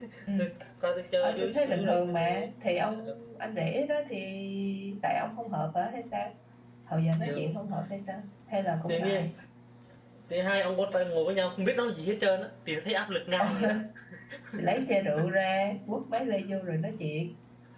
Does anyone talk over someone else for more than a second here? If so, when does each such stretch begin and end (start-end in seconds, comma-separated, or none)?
1.2-2.5